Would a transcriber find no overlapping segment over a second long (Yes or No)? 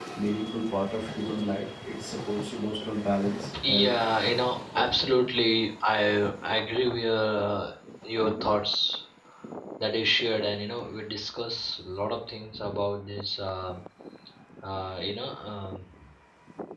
Yes